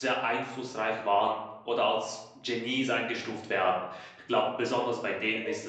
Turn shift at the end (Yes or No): Yes